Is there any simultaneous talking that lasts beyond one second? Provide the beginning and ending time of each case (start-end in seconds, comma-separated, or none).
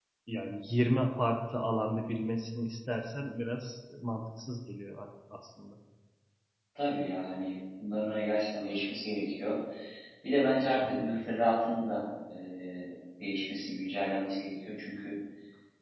none